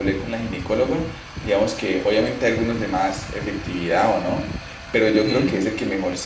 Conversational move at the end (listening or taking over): listening